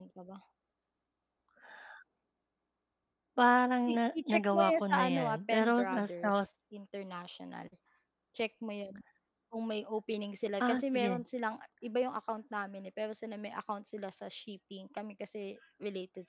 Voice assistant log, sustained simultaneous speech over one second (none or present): present